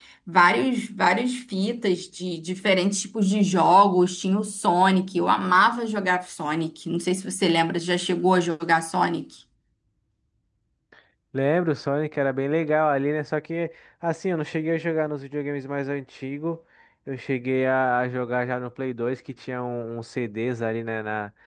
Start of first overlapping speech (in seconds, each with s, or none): none